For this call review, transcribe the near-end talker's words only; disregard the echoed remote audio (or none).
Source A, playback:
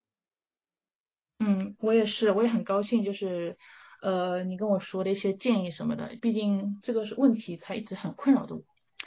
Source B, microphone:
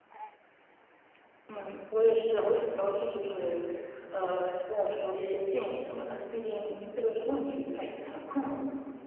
none